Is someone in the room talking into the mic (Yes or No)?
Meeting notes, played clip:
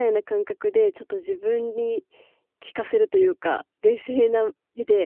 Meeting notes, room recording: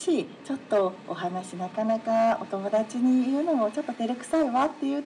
Yes